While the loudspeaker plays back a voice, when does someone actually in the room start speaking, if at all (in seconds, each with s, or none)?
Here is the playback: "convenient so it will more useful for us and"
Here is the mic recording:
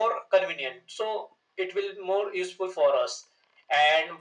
none